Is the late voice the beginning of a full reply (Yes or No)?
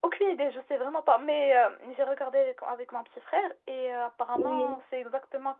No